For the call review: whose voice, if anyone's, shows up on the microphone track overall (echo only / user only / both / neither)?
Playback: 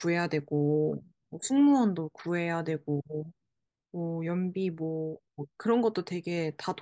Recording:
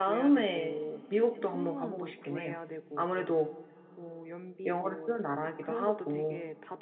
both